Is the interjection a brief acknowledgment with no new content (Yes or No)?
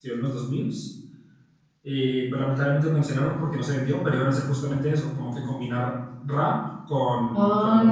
No